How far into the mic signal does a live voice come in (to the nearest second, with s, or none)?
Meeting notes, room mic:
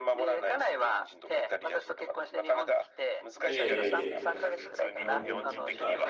3 s